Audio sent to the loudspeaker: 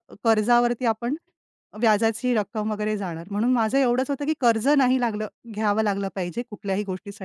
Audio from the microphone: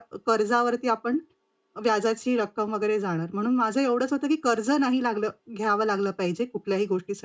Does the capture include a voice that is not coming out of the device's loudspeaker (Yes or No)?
No